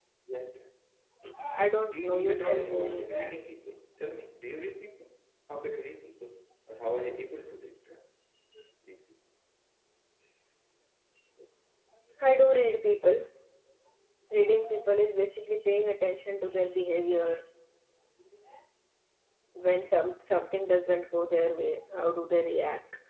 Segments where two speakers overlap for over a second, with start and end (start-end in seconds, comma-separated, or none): 1.9-3.1